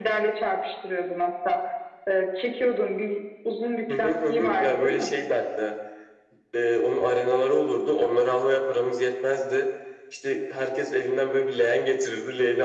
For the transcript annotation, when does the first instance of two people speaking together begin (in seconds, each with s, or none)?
3.9 s